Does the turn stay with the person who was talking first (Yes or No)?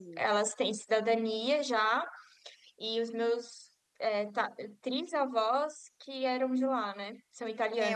No